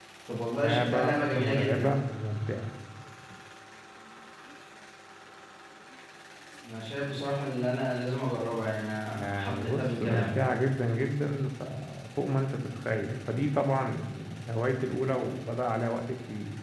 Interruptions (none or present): present